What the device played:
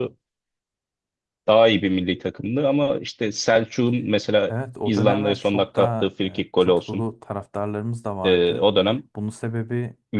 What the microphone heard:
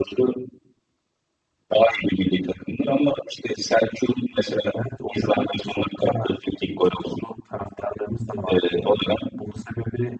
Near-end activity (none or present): none